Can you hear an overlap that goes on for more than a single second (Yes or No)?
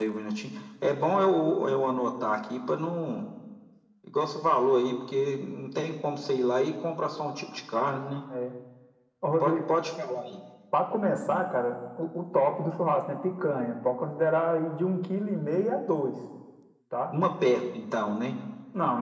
No